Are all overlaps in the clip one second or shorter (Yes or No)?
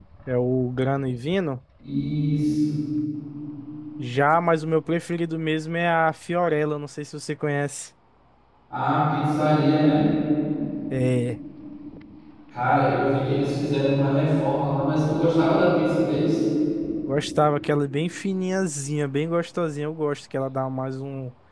Yes